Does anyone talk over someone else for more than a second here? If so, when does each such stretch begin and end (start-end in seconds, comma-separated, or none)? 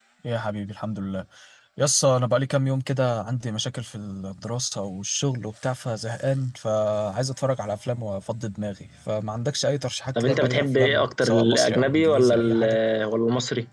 10.2-12.8